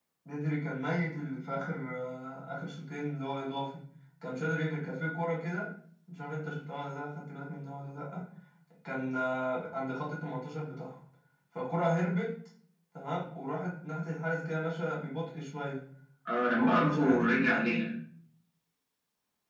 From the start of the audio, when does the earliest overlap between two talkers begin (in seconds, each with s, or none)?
16.5 s